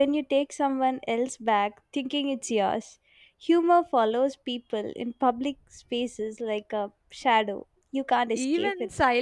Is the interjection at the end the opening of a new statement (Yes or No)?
Yes